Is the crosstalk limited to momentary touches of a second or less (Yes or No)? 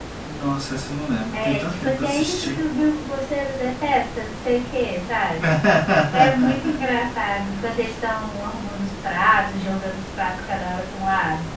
No